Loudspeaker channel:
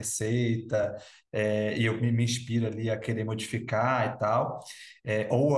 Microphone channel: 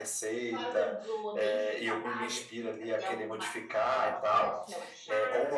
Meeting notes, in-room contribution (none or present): present